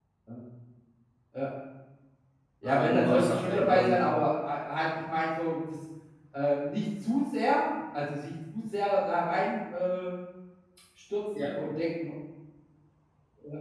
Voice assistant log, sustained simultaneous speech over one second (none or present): present